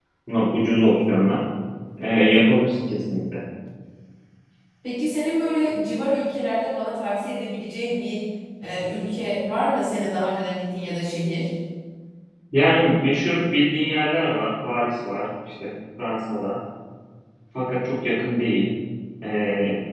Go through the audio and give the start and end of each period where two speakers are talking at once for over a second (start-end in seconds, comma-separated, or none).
none